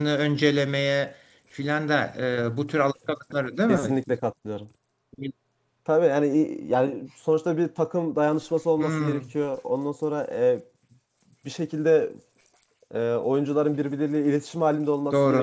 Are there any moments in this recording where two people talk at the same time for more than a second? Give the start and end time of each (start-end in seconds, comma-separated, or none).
none